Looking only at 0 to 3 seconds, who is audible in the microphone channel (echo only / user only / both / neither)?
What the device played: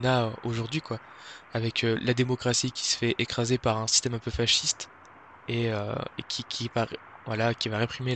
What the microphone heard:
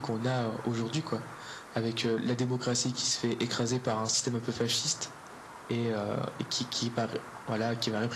echo only